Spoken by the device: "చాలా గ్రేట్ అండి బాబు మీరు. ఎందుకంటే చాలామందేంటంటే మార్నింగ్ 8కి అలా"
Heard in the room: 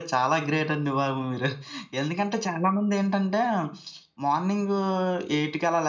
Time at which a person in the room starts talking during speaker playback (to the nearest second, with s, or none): none